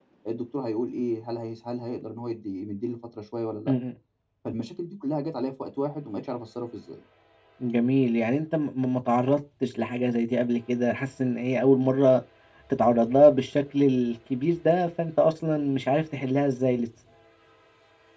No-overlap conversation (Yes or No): Yes